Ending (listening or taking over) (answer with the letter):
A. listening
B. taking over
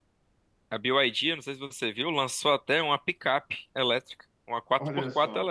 A